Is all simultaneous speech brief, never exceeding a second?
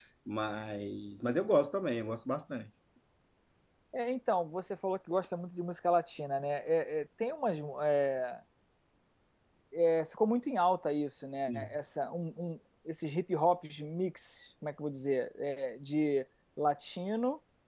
Yes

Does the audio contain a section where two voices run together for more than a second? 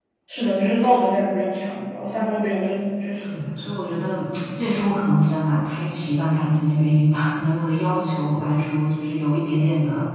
No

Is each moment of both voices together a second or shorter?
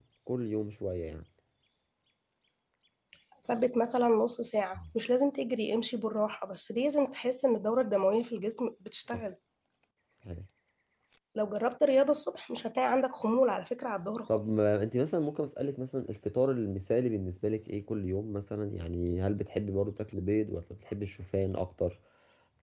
Yes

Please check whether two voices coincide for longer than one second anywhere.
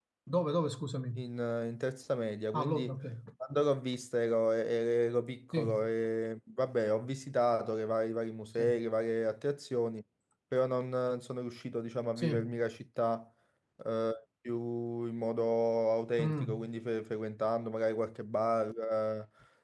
No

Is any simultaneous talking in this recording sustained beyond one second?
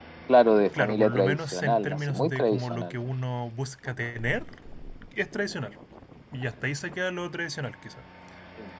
Yes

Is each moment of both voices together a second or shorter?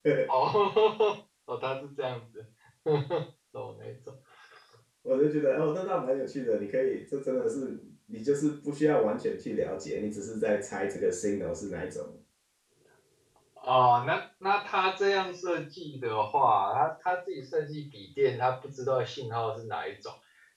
Yes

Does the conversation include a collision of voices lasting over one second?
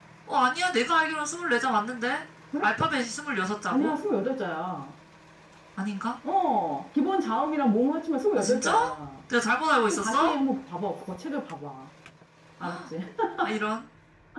No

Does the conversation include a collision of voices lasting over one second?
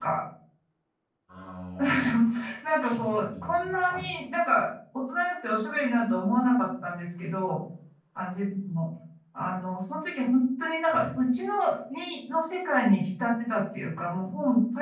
Yes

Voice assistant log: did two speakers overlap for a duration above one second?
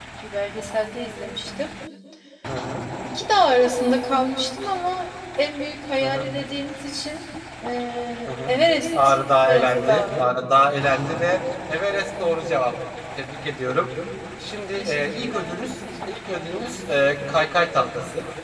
Yes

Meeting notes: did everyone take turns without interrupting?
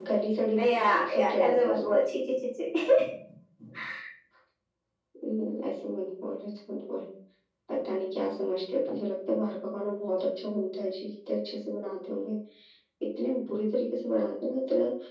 No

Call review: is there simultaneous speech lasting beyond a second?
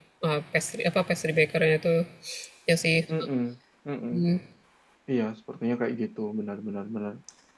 No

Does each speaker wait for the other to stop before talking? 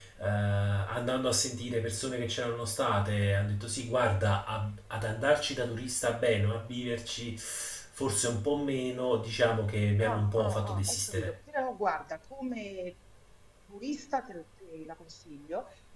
No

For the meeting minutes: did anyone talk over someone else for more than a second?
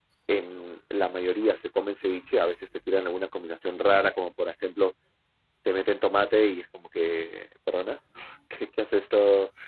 No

